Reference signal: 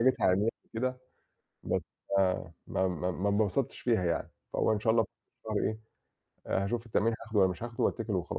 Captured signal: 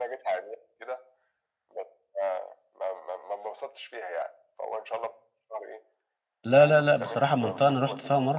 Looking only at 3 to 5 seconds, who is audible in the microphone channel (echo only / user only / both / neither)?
echo only